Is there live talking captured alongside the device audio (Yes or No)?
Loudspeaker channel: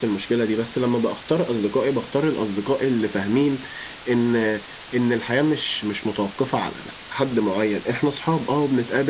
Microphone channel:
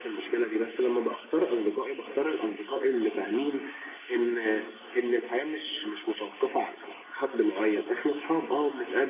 No